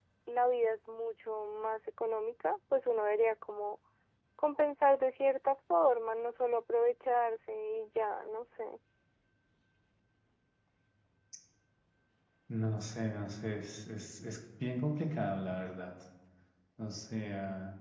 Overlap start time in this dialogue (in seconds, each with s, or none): none